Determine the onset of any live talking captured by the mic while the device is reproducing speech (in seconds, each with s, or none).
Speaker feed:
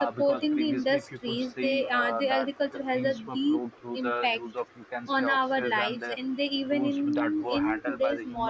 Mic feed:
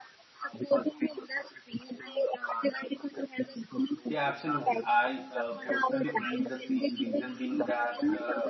4.1 s